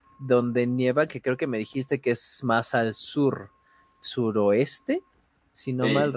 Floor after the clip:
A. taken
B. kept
A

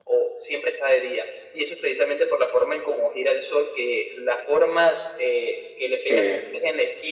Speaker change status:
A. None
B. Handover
A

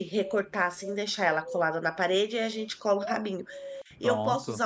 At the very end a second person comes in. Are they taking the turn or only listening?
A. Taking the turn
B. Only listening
B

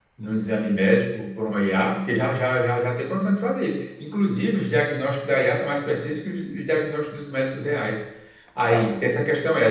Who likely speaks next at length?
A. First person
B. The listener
A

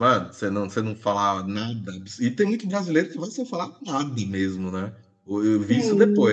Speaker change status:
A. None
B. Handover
A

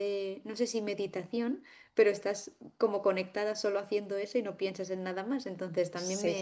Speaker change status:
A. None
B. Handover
A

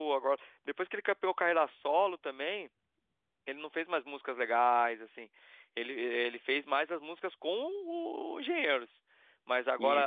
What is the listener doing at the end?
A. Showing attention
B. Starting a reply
A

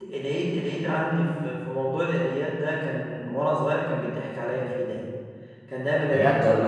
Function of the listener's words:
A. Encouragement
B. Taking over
A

